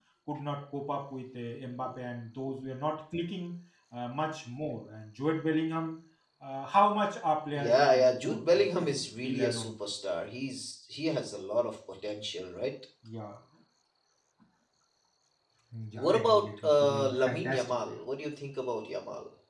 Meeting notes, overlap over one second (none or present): present